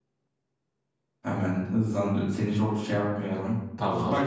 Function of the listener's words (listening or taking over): listening